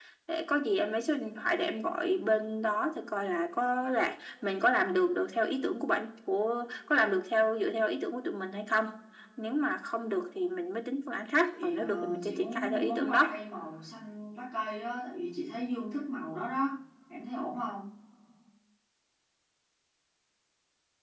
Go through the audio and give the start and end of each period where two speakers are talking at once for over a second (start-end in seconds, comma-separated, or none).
11.5-13.3